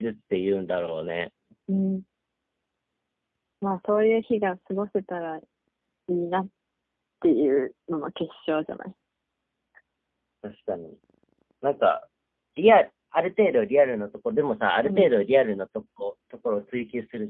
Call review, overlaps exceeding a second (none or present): none